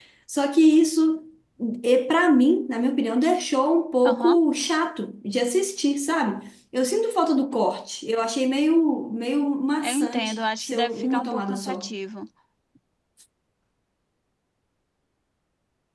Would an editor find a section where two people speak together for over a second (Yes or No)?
Yes